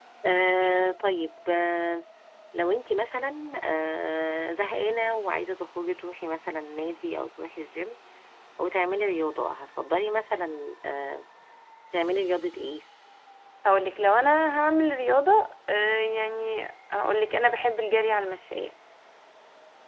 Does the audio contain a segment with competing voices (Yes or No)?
No